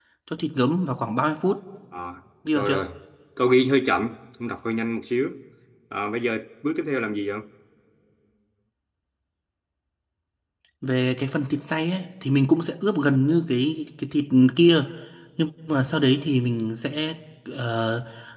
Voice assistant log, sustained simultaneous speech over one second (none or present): none